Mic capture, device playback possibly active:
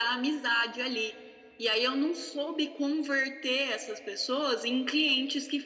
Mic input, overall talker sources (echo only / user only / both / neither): echo only